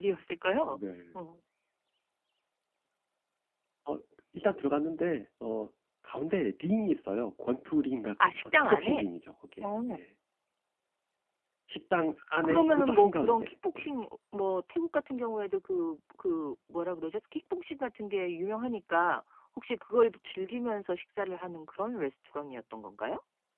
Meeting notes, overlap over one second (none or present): present